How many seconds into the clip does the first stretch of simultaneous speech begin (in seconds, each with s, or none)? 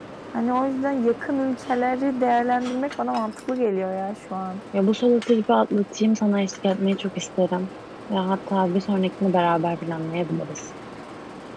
none